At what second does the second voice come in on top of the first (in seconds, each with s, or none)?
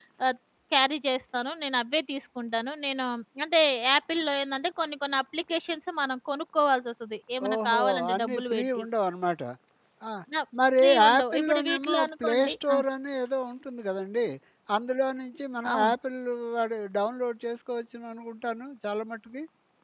7.5 s